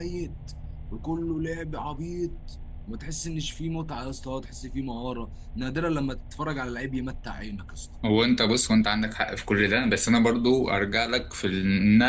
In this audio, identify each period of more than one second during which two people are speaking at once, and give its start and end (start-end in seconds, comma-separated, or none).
none